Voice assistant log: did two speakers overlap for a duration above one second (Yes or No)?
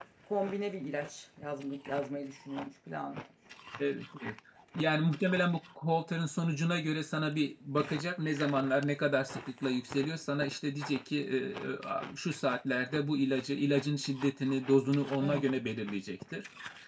No